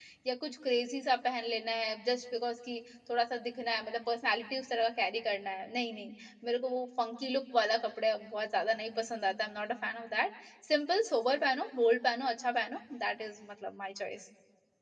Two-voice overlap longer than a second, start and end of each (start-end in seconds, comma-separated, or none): none